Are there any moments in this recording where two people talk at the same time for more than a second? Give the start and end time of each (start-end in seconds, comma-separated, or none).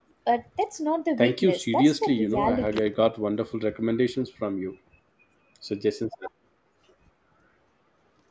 1.2-2.9